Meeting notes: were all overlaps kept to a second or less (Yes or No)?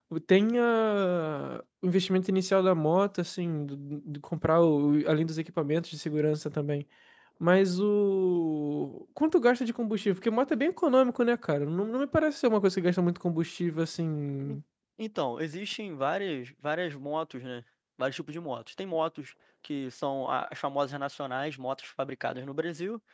Yes